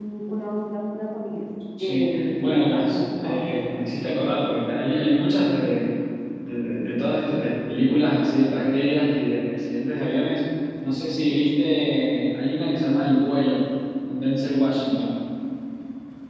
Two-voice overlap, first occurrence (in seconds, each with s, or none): 1.8 s